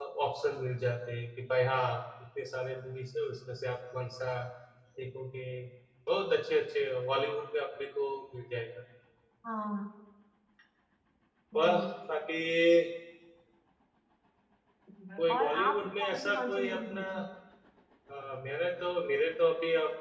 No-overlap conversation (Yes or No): No